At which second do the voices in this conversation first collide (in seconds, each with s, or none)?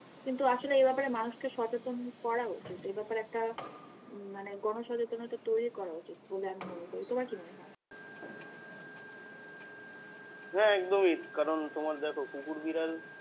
none